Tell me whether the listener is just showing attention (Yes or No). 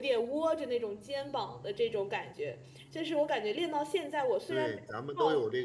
No